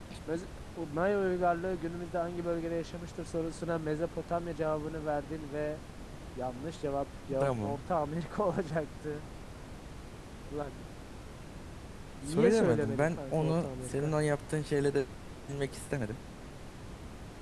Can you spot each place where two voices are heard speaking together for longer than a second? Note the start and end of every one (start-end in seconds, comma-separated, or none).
12.3-14.1